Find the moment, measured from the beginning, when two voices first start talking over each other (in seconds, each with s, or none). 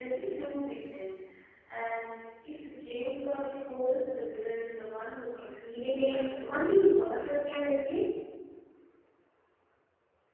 5.7 s